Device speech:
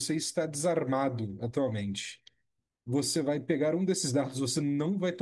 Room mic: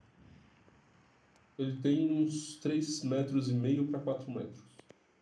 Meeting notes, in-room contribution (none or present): present